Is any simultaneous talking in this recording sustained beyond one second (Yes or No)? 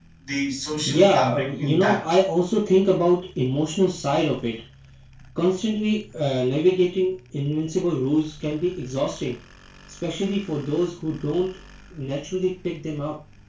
Yes